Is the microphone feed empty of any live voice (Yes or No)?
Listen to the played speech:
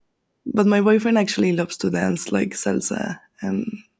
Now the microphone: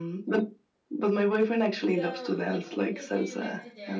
No